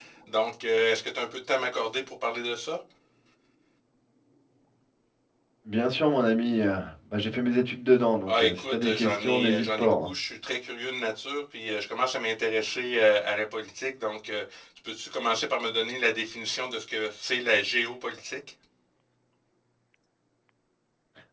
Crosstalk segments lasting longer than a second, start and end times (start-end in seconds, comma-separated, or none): 8.3-10.1